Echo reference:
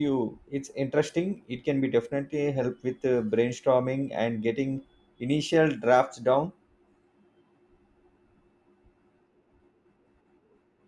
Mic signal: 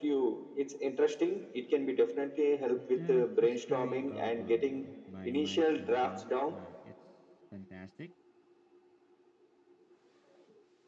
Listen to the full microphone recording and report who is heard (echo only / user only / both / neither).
both